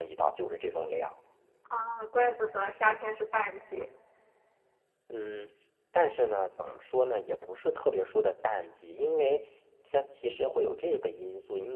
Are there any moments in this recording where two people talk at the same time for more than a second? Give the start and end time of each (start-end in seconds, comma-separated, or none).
none